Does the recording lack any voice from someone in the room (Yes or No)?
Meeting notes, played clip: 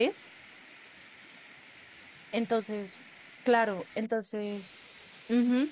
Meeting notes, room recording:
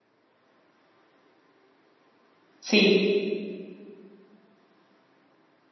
No